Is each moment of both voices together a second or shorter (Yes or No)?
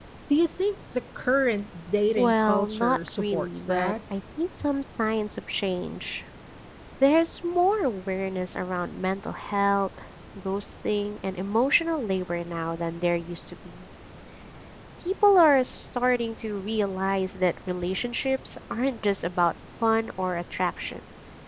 No